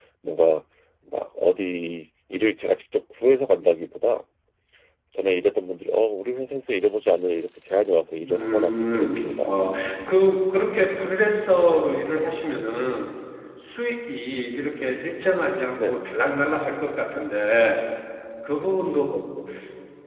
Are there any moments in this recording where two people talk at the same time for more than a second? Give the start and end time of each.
8.2-9.5

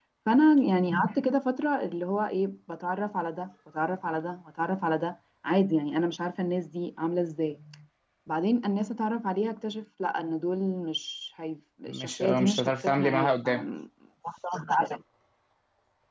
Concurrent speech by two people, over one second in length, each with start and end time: 11.9-13.6

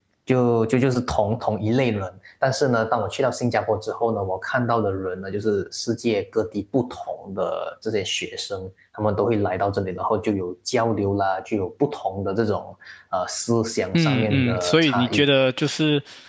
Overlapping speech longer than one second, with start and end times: 13.9-15.2

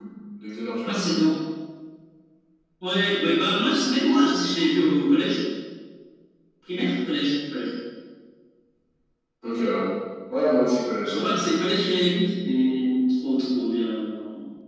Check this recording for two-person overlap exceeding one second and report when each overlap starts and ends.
none

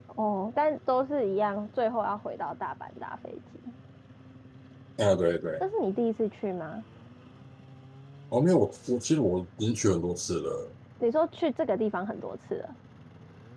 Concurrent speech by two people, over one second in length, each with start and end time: none

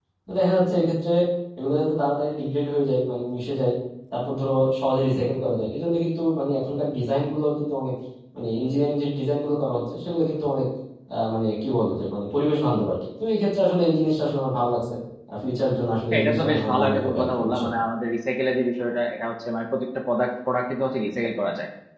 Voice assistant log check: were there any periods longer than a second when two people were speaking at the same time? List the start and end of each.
16.1-17.6

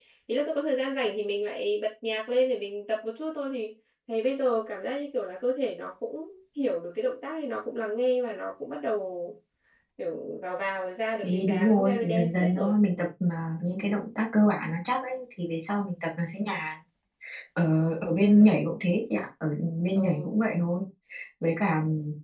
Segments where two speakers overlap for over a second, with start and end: 11.2-12.7

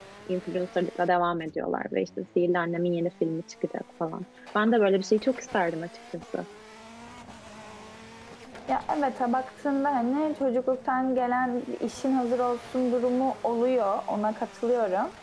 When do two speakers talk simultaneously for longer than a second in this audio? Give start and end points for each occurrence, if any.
none

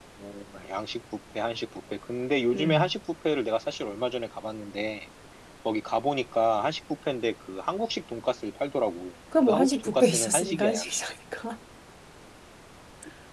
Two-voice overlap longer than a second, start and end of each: 9.5-11.0

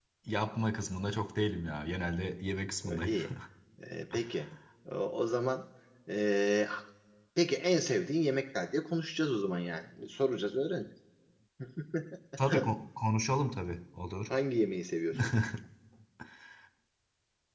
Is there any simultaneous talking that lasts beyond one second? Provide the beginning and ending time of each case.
none

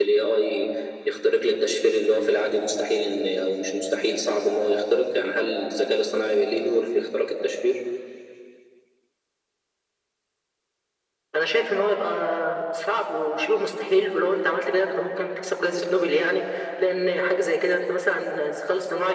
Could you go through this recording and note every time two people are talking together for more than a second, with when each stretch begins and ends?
none

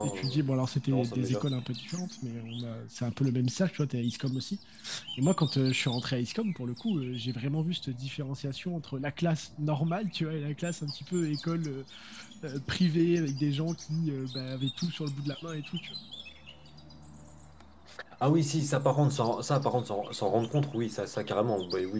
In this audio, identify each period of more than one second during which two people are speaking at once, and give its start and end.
none

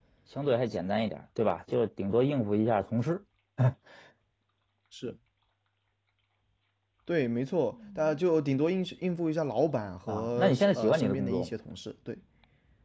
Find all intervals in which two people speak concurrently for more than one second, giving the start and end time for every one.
10.1-11.5

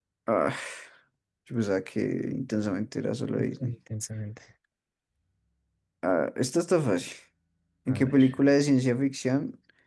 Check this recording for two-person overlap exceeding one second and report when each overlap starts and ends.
none

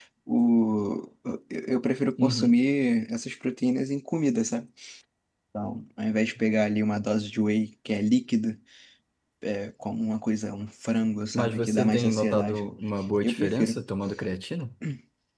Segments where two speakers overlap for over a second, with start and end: 11.3-12.6

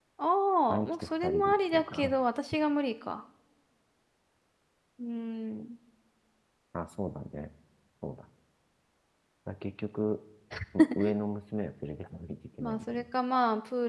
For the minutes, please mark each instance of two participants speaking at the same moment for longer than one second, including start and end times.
0.7-2.1

